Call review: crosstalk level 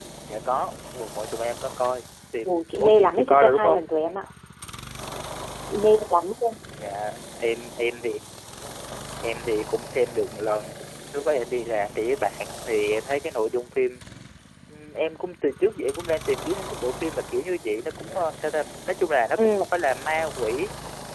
present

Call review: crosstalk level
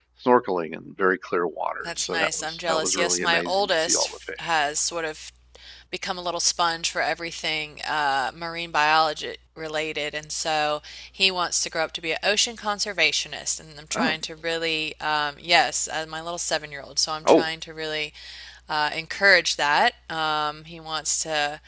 present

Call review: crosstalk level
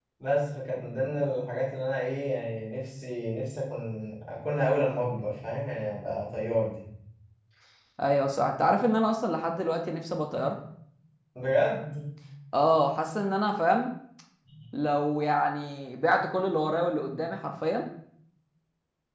none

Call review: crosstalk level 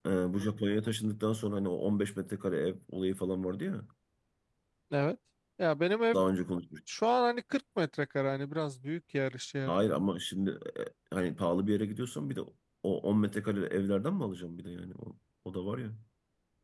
none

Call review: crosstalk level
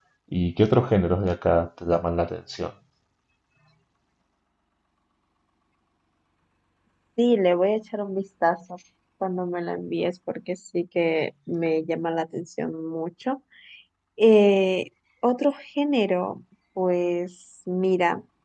none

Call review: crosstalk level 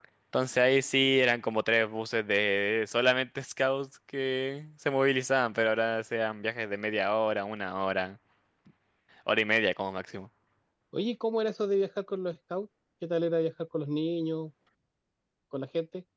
none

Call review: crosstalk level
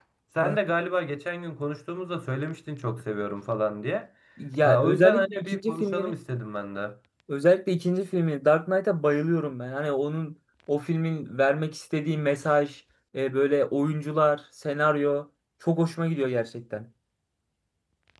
present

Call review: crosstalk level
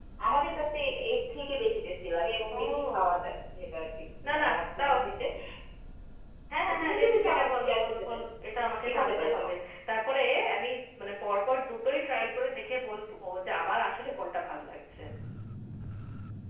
present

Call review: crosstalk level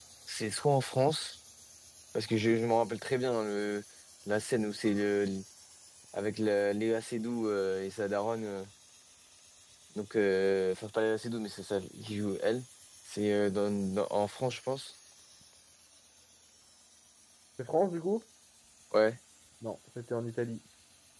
none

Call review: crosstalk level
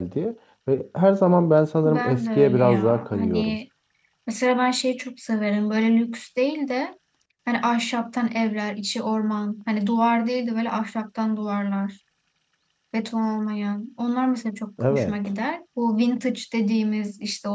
present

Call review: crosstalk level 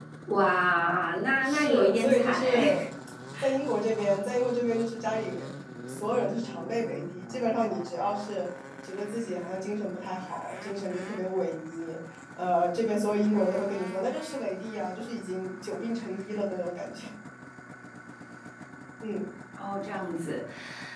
present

